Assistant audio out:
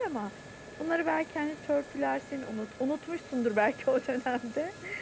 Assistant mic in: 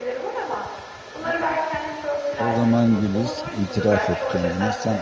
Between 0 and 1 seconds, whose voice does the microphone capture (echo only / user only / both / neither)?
echo only